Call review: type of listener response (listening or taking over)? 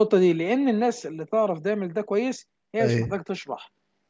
listening